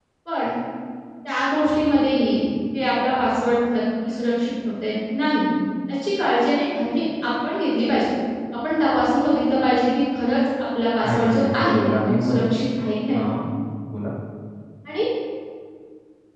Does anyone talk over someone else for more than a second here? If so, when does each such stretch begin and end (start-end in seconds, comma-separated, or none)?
11.0-12.6